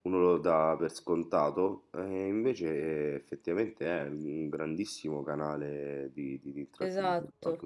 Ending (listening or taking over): taking over